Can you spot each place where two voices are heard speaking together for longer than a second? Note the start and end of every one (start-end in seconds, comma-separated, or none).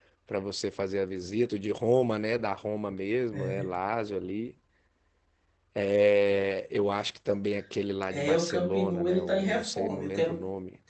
8.1-10.4